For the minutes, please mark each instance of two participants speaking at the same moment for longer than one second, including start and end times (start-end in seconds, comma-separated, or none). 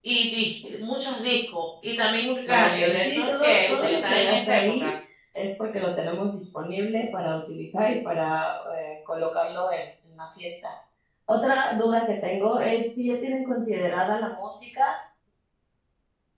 2.5-4.9